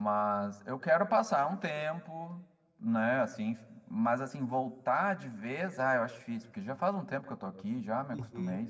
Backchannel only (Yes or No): No